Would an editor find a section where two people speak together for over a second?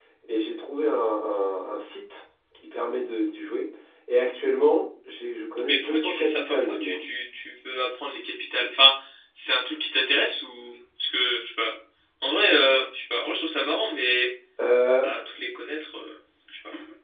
Yes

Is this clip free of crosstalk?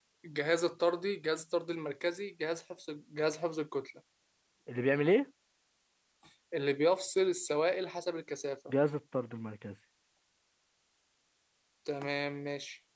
Yes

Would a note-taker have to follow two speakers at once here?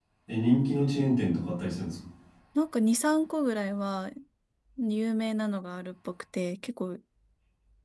No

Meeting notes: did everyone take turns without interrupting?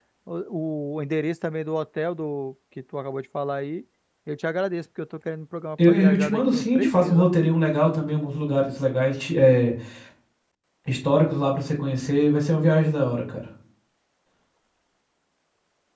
No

